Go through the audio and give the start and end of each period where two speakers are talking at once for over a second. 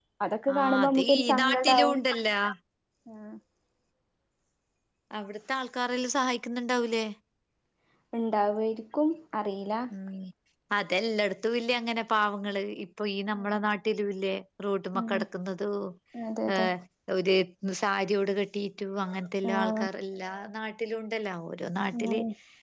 0.6-2.0

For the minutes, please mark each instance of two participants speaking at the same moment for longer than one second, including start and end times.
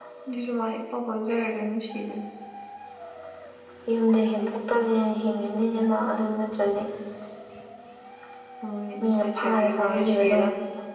9.0-10.5

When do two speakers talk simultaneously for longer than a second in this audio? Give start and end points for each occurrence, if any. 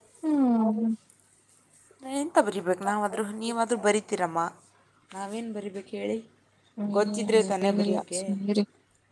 7.0-8.2

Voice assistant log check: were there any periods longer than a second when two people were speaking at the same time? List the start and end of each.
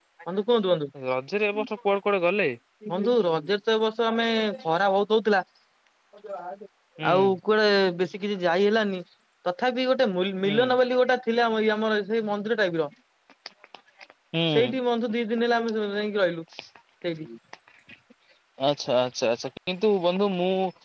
none

